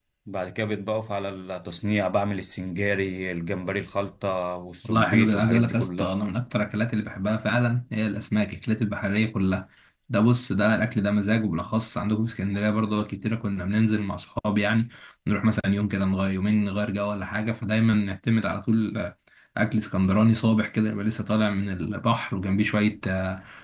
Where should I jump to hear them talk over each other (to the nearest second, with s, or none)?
5 s